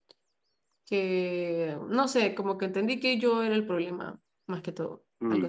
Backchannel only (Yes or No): No